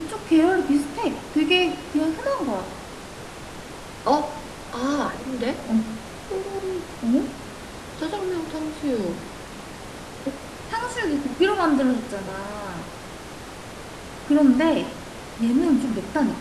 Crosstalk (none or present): none